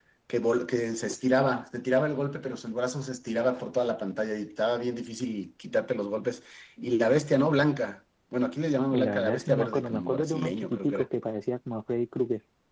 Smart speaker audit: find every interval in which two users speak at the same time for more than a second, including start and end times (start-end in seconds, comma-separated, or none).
8.9-11.1